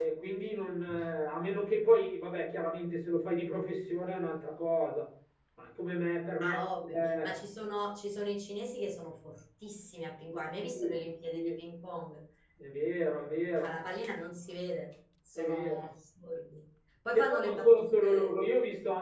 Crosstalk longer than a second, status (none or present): present